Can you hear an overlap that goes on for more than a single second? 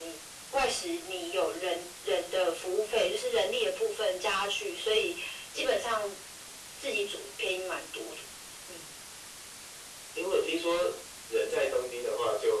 No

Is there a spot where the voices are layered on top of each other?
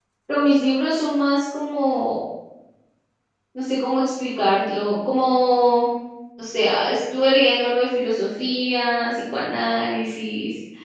No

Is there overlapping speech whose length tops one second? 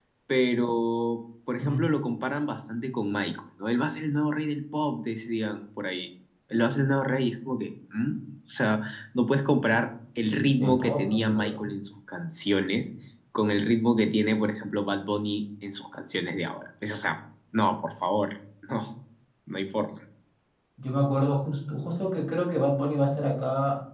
Yes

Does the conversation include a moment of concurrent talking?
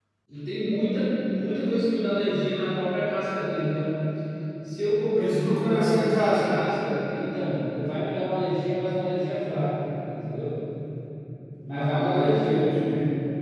Yes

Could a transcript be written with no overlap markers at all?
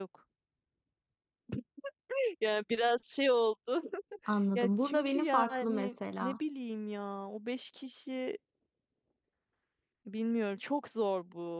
No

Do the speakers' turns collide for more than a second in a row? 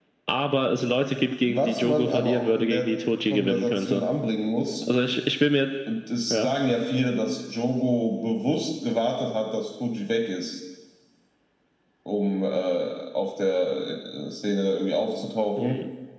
Yes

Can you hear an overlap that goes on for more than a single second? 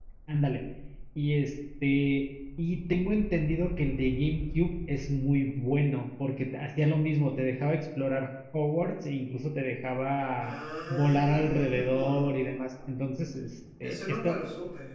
Yes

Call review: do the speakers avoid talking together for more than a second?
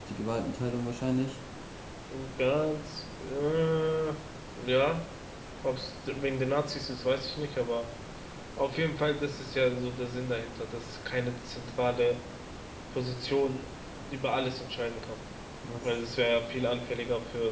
Yes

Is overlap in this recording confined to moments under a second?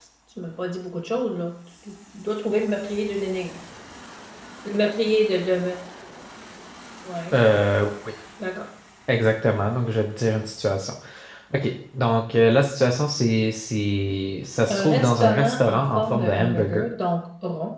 No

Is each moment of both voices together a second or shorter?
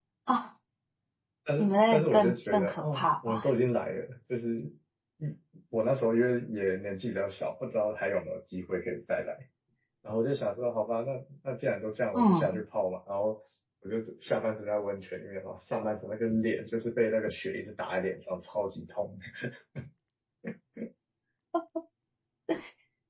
No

